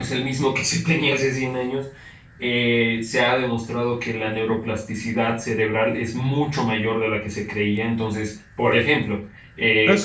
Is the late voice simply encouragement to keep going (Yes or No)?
No